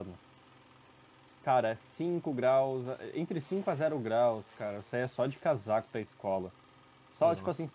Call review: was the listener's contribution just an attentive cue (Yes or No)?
Yes